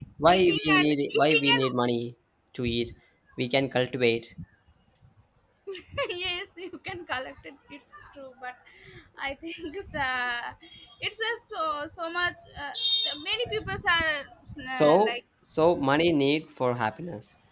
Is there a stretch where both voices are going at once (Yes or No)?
Yes